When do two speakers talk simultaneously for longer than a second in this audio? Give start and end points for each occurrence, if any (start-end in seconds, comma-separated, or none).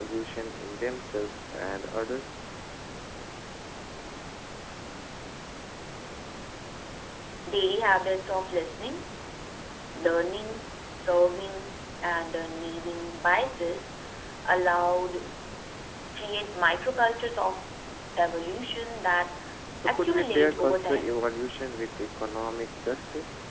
19.9-21.2